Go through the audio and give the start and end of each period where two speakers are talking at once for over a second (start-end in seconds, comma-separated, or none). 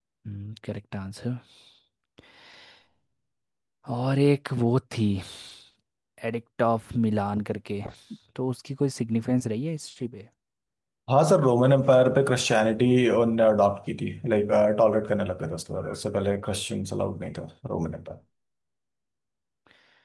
none